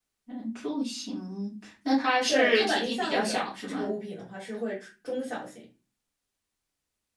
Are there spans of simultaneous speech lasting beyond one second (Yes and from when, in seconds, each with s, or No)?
Yes, from 2.3 s